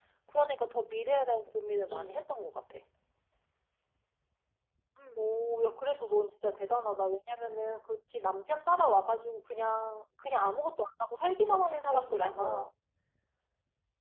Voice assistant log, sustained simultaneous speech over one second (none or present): present